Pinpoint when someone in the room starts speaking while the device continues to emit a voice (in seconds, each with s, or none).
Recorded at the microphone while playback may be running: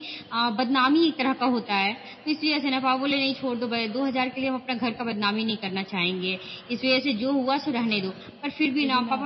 7.8 s